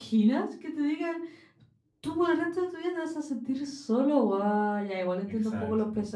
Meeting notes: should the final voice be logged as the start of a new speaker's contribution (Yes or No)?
No